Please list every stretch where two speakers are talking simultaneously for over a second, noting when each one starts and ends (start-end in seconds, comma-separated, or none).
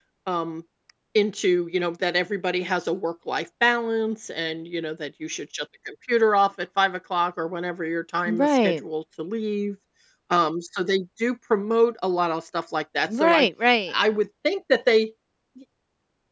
none